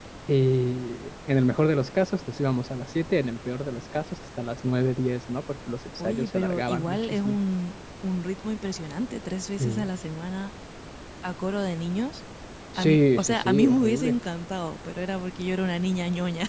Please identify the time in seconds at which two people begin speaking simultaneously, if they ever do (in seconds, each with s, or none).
6.0 s